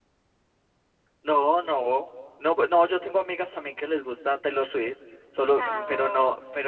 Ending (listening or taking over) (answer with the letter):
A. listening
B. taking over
A